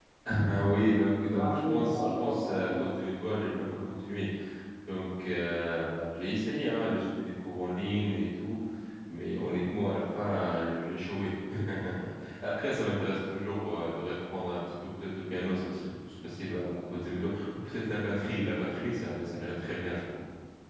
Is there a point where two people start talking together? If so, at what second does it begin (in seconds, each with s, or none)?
1.4 s